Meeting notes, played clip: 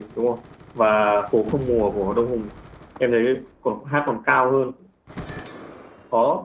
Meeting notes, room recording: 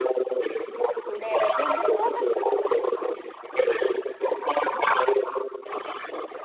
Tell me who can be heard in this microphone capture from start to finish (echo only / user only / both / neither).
both